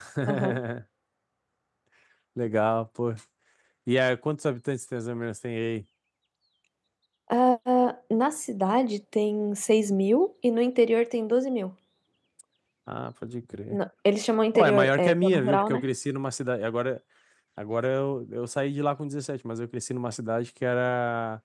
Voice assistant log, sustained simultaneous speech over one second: present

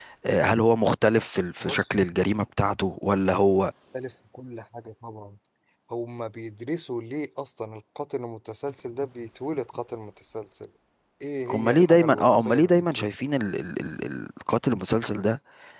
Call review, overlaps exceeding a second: present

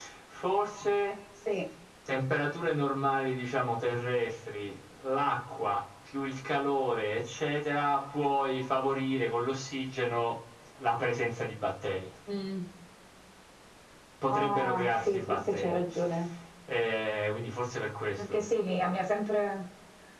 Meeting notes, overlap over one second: present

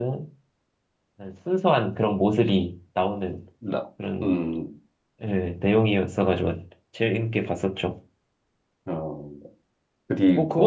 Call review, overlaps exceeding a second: none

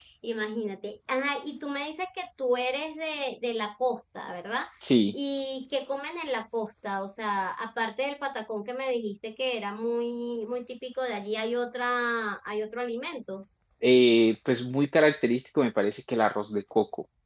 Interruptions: none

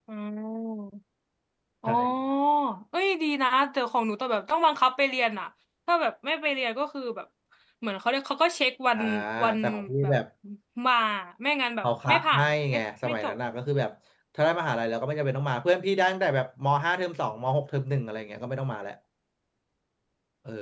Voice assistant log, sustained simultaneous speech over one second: present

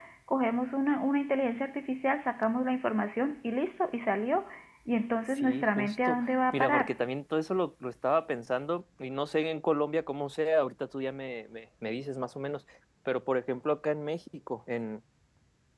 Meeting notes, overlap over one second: present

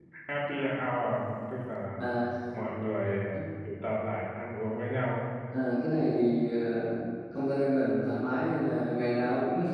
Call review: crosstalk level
none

